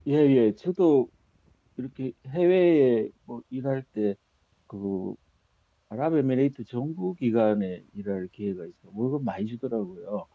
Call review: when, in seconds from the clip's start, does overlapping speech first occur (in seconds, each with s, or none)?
none